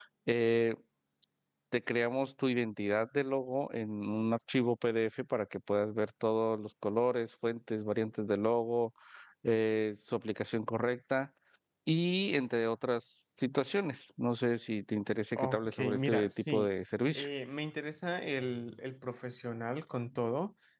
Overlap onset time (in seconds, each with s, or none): 15.3 s